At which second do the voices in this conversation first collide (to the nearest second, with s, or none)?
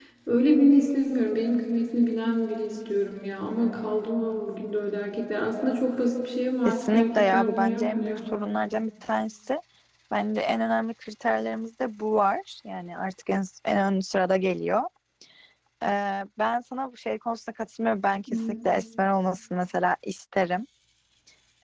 7 s